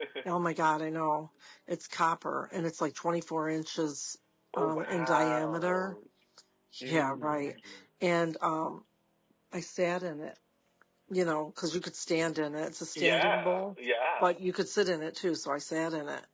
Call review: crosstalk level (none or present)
present